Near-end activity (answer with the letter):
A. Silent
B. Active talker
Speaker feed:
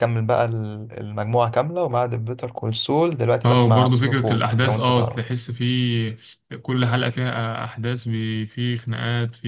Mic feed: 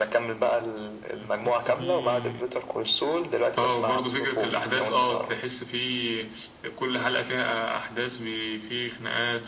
B